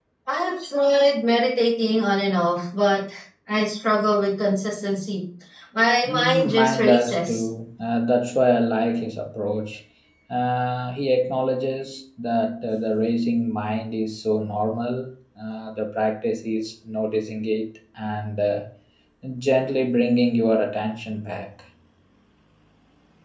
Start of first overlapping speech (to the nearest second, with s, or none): 6 s